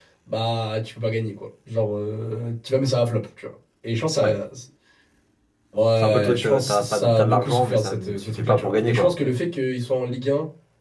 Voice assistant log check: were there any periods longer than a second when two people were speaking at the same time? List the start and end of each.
6.0-9.1

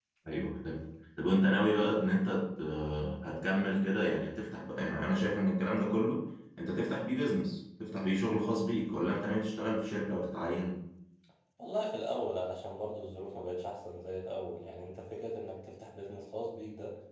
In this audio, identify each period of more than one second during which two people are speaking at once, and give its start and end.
none

